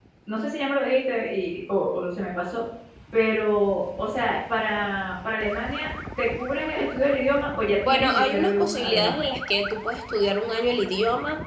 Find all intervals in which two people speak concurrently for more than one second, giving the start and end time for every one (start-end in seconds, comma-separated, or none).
7.8-9.2